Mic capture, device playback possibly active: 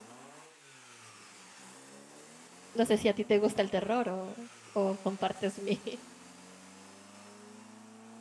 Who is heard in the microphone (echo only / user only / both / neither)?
user only